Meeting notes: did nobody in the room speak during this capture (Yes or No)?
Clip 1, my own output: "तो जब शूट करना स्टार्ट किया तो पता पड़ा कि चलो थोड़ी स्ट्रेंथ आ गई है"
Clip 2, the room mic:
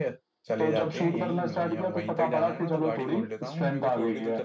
No